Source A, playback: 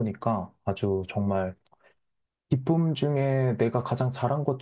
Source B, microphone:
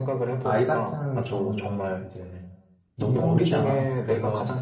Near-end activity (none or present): present